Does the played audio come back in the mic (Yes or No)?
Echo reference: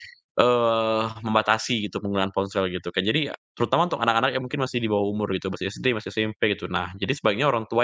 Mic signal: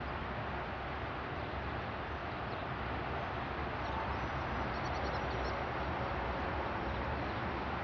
No